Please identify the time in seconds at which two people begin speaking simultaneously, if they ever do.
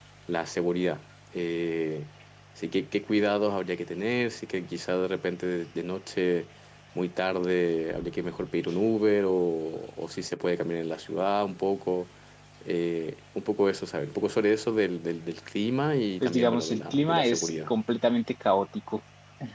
16.2 s

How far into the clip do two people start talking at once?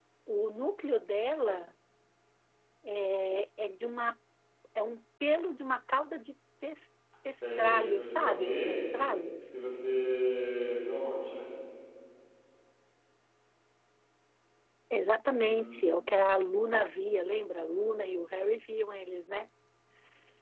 7.6 s

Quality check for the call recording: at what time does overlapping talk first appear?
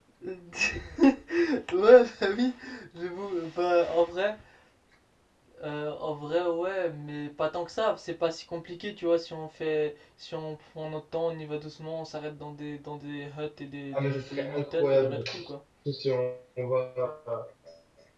13.9 s

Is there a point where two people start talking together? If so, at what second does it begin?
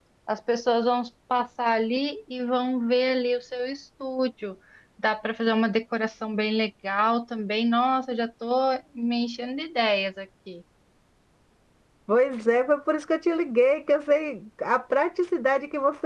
none

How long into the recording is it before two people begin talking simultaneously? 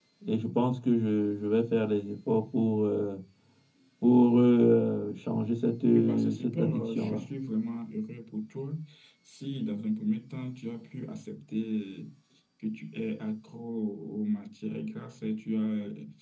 5.9 s

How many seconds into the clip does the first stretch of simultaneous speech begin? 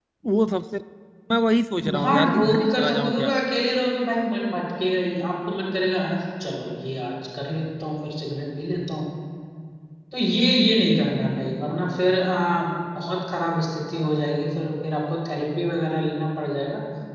2.0 s

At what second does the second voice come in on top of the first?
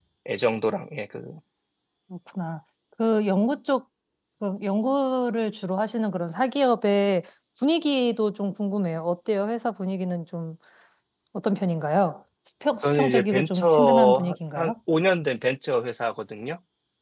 12.8 s

